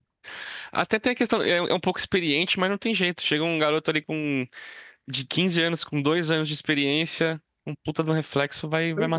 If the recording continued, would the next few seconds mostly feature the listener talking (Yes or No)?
Yes